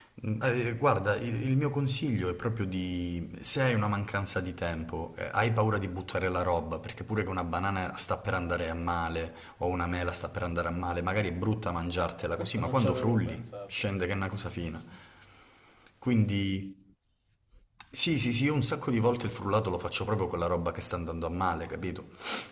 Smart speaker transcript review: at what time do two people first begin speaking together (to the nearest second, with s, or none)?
12 s